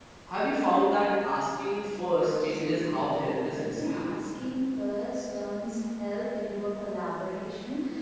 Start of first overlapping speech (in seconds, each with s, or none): 2.2 s